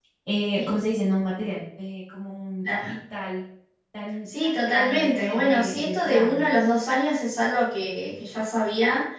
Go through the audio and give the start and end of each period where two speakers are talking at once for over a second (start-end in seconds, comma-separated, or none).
4.4-6.4